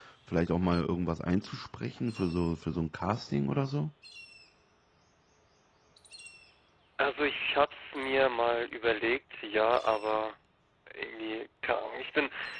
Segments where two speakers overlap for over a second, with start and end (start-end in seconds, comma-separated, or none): none